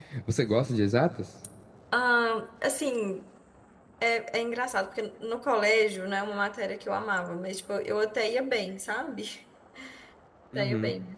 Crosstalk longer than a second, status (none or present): none